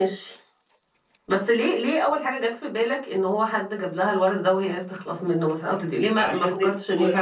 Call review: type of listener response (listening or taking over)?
taking over